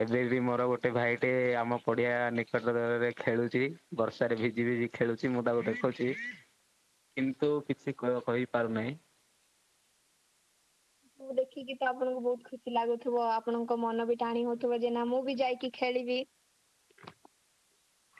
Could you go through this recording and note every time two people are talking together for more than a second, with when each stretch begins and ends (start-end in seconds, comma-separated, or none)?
none